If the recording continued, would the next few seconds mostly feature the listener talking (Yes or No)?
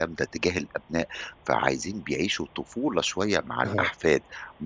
No